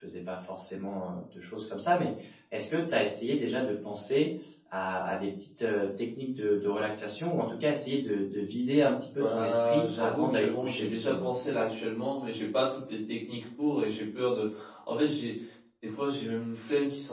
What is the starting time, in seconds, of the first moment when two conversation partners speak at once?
9.2 s

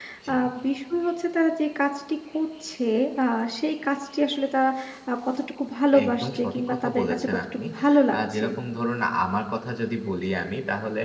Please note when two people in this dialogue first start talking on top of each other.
5.9 s

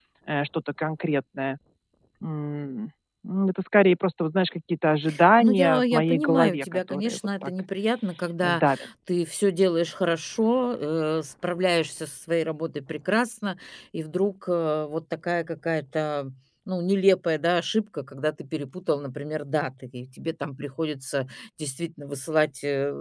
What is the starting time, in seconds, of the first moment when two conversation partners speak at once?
5.4 s

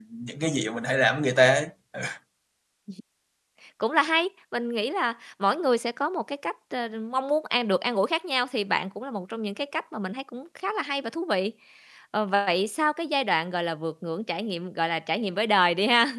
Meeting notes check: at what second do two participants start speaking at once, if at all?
none

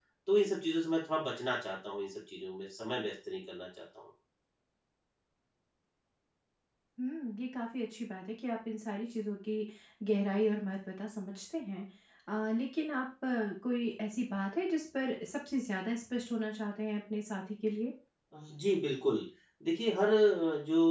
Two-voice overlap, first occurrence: none

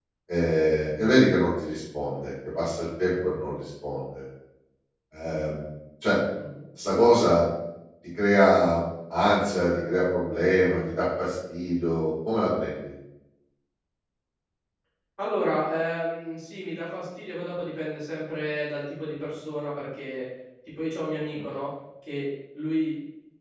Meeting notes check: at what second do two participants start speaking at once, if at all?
none

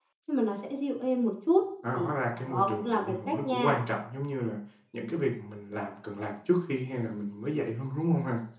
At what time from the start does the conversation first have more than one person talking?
1.8 s

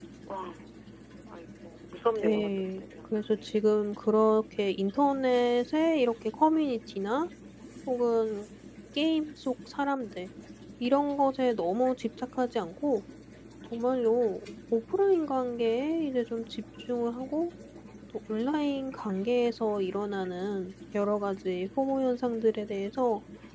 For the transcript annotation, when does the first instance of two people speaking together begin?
2.2 s

